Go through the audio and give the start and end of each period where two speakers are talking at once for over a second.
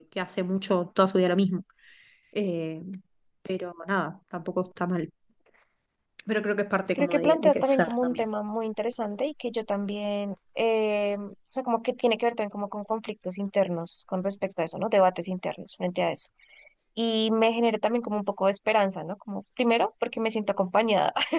7.0-8.2

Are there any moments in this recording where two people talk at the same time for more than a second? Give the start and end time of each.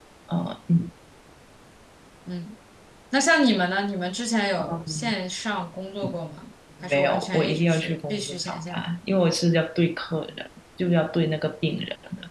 6.9-8.9

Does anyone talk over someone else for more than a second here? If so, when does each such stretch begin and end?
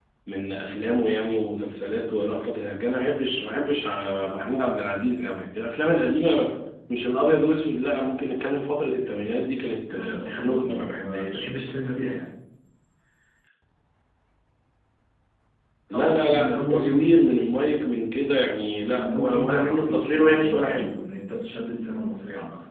9.9-11.5, 15.9-17.1, 18.9-20.9

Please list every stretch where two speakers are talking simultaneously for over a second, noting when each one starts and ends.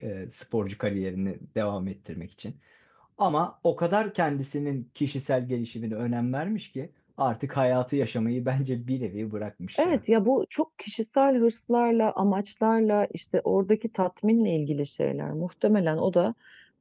none

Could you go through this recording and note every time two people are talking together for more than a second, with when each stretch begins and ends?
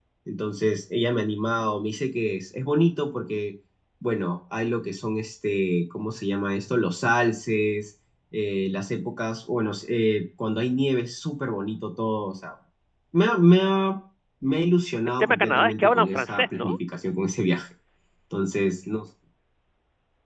15.2-16.7

